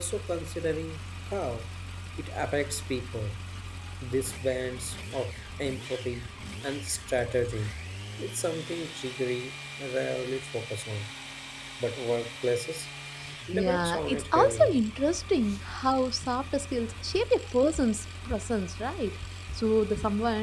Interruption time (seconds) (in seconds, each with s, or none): 13.5 s